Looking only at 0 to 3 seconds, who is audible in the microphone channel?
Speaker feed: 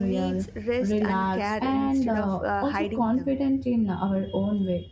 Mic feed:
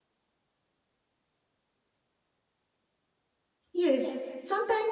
neither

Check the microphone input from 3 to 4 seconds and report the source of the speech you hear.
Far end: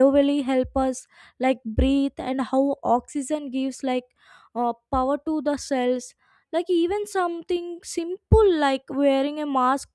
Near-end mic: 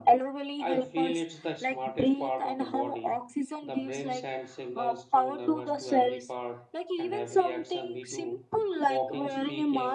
both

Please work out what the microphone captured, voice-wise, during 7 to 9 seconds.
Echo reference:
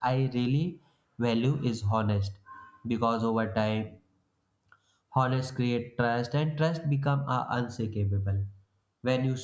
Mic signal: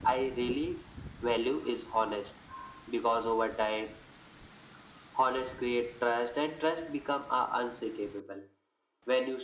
echo only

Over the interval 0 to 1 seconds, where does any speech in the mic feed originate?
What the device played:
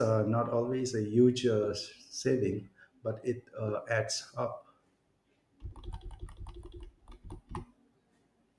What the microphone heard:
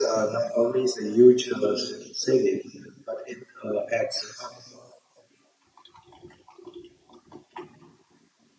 echo only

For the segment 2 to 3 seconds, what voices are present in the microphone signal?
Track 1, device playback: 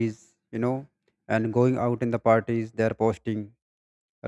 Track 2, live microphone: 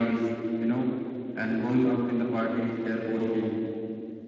echo only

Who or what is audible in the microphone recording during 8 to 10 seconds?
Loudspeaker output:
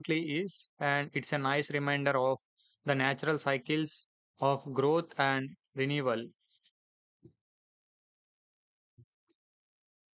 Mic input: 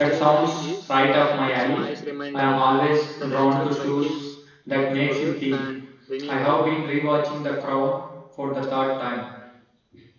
user only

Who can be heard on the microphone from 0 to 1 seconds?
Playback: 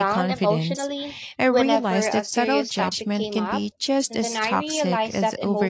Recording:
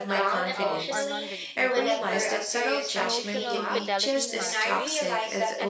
both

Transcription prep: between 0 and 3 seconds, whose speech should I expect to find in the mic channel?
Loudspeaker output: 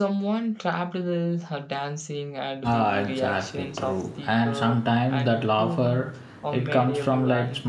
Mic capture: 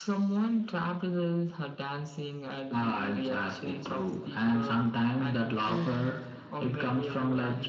echo only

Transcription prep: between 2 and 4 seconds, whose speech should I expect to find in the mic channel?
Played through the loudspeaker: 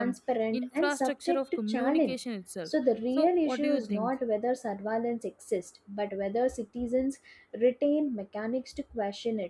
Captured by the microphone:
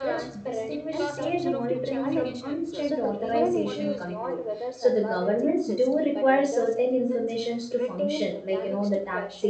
both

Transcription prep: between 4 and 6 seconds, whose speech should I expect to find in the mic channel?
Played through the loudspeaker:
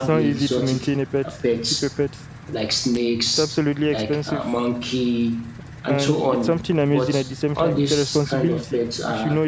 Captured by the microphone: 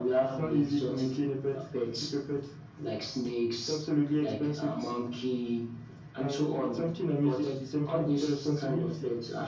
both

